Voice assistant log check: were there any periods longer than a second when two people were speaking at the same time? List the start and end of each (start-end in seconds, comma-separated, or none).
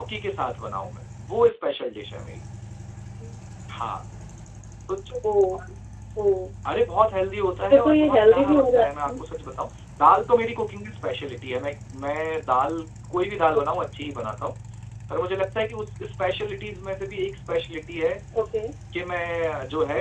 7.7-9.1